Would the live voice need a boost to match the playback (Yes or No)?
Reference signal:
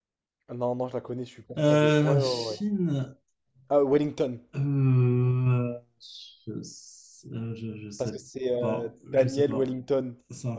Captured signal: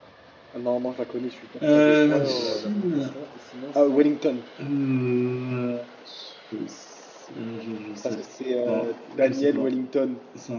Yes